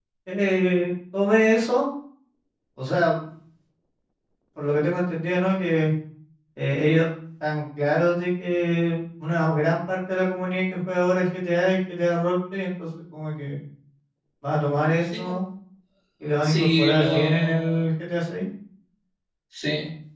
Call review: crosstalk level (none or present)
present